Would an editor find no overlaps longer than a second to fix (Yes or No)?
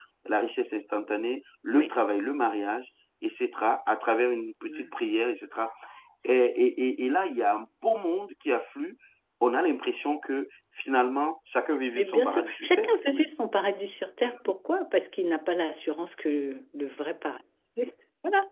No